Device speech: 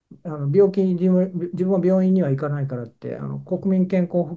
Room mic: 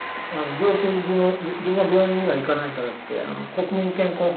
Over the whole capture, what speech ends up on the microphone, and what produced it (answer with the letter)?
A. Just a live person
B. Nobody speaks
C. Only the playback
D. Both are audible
C